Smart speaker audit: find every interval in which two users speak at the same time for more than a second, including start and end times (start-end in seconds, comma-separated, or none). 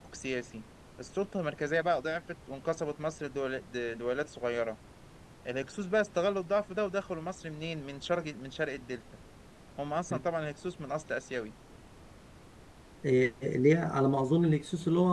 none